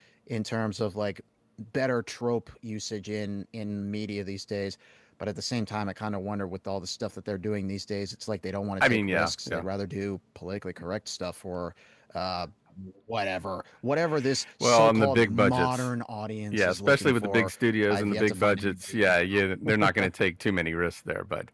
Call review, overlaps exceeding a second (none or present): present